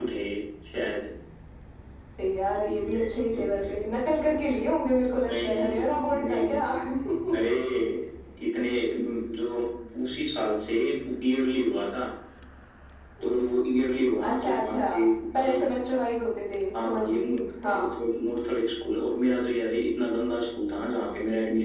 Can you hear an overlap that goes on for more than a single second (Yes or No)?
Yes